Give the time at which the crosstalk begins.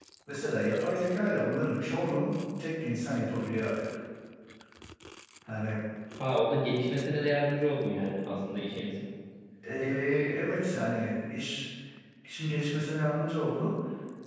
none

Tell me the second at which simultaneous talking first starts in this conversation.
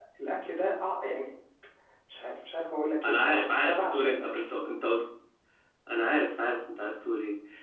3.0 s

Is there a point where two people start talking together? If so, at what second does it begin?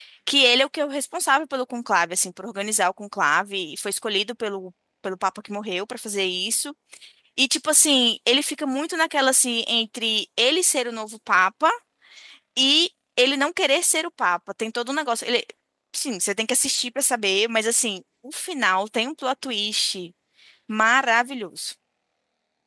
none

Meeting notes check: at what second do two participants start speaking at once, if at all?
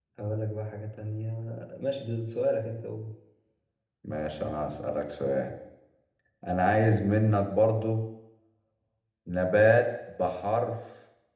none

